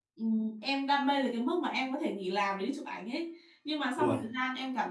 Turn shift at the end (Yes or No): No